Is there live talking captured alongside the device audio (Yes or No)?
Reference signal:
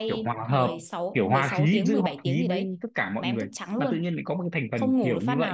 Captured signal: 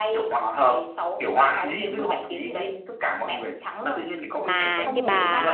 Yes